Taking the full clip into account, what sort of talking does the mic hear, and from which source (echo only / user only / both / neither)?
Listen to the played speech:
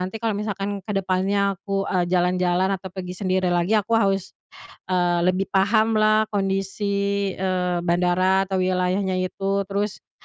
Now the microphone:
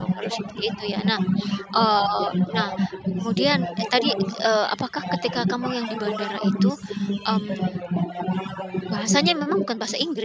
both